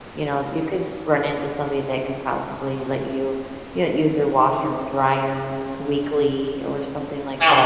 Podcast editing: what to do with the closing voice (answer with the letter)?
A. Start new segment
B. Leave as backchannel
A